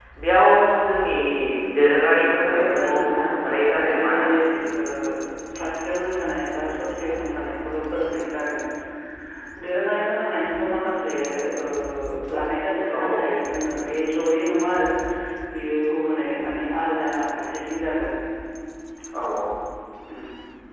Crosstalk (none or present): present